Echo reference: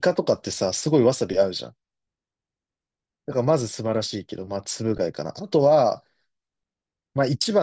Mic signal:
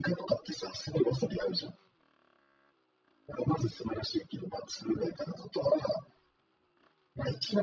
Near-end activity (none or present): none